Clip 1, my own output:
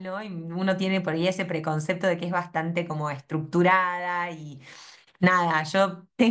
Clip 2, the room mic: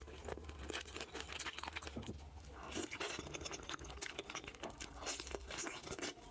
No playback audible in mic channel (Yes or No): Yes